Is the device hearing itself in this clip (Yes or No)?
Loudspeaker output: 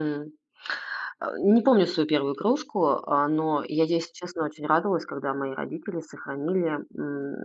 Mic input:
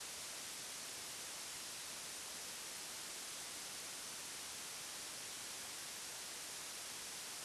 No